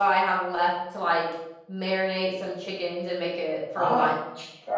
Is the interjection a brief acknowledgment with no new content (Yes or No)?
No